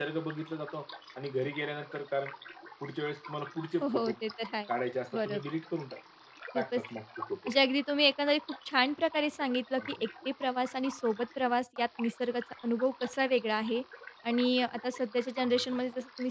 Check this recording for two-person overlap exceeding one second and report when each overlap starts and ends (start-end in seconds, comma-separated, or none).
none